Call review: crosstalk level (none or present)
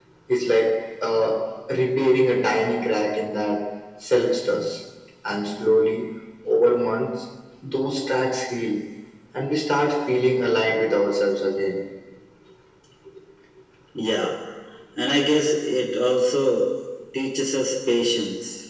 none